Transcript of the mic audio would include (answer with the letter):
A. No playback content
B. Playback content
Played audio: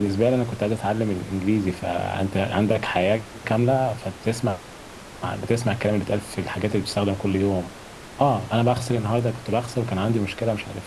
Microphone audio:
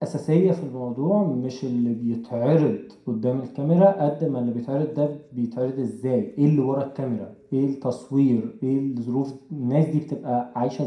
A